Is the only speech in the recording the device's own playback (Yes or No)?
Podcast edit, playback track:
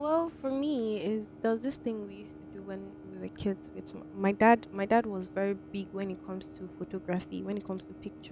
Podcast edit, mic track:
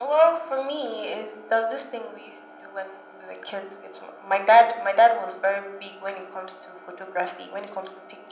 Yes